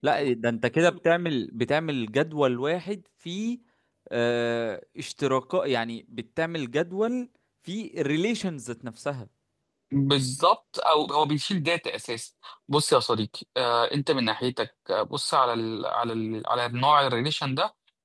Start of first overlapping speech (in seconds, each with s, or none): none